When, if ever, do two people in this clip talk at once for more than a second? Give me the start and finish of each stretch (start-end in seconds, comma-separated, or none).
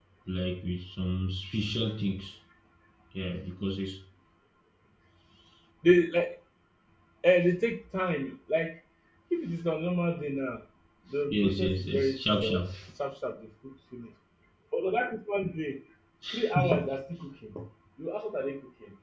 11.3-12.6